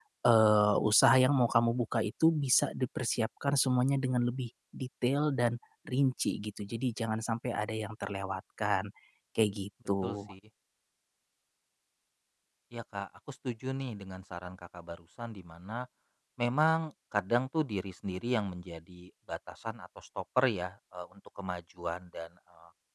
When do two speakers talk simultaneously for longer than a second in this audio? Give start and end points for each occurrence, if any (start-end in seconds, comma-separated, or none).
none